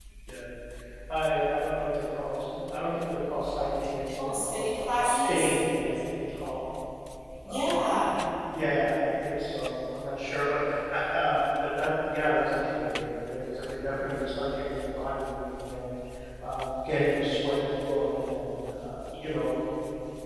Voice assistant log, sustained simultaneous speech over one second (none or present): present